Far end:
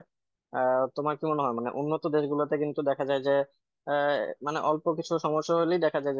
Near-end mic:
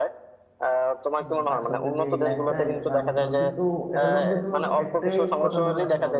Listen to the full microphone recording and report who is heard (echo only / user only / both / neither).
both